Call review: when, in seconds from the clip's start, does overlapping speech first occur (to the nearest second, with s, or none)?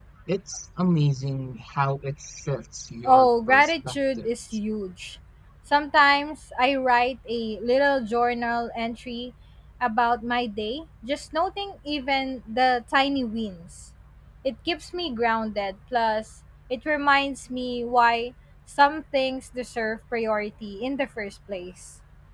3 s